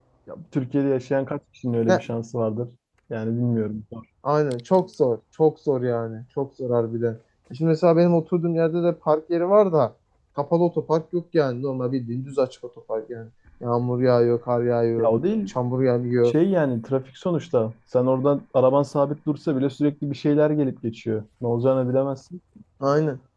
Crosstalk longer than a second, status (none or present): none